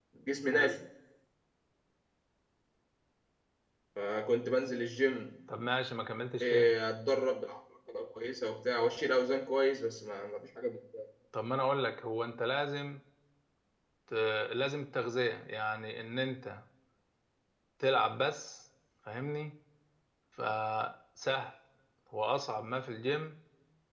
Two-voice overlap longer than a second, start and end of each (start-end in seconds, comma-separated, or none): none